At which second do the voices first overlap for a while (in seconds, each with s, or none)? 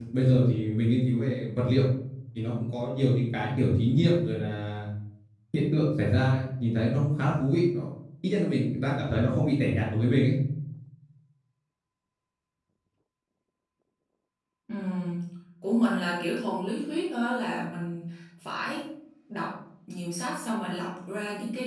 none